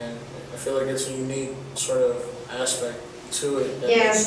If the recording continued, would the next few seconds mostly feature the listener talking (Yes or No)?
Yes